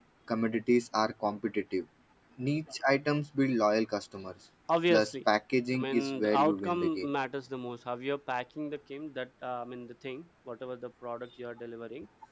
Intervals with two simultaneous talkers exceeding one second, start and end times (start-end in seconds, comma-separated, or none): 5.7-7.1